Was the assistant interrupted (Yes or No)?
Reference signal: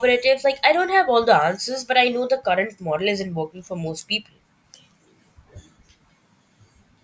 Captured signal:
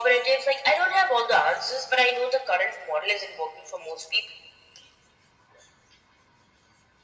No